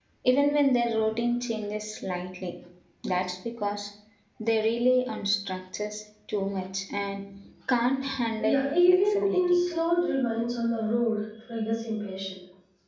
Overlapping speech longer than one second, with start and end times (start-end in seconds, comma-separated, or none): 8.4-9.6